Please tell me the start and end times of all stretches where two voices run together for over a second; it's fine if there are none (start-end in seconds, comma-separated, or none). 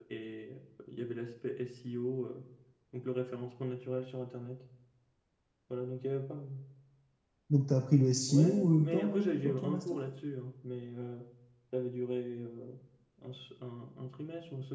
8.3-9.8